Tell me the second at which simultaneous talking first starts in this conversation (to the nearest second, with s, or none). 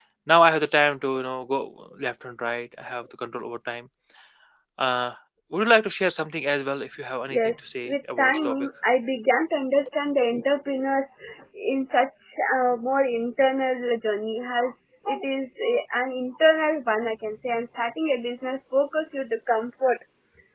7 s